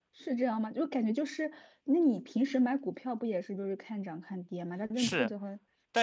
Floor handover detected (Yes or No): Yes